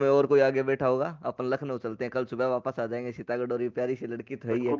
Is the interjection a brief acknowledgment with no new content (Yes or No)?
No